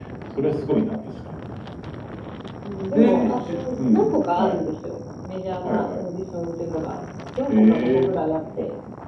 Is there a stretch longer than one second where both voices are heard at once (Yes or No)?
Yes